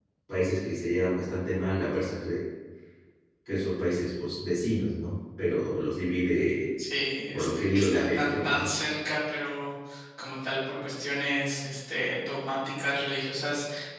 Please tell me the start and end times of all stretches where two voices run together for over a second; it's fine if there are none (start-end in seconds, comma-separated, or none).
7.3-8.7